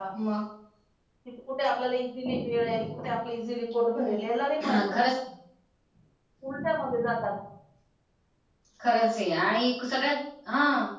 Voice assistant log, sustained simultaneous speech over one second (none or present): none